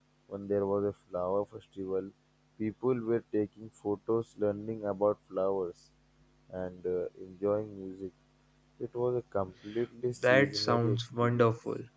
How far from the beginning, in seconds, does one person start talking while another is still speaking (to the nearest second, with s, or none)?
10 s